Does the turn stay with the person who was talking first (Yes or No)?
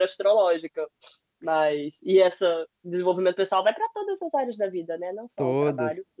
Yes